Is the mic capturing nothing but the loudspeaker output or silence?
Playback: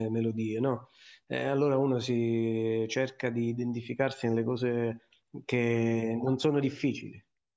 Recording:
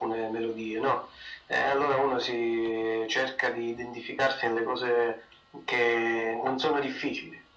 Yes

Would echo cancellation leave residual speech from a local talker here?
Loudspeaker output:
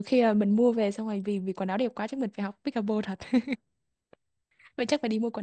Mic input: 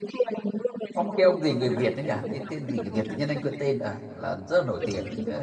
Yes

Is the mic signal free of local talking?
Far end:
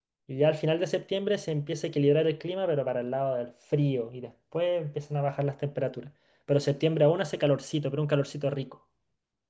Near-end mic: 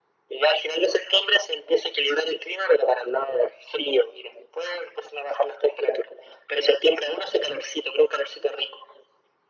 Yes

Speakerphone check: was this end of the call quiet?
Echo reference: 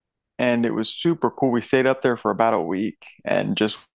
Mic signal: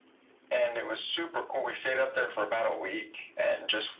Yes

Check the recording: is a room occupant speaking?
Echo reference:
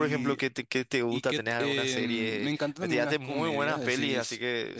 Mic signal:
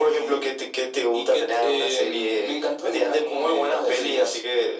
No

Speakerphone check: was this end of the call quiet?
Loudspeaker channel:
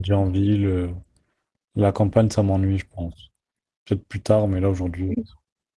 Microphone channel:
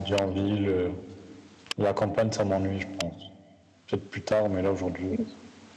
Yes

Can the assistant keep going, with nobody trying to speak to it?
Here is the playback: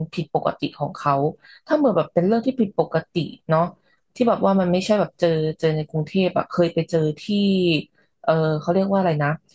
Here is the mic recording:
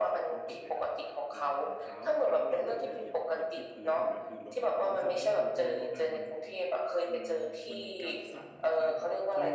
No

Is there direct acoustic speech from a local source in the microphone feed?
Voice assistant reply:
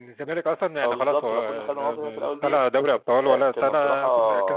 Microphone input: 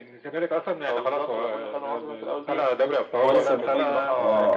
Yes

